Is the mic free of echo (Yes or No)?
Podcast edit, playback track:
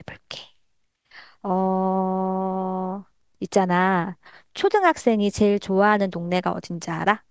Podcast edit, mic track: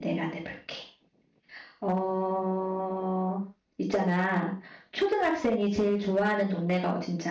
No